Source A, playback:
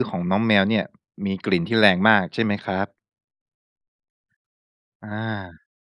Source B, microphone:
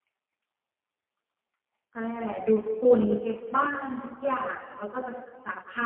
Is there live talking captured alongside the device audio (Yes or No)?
Yes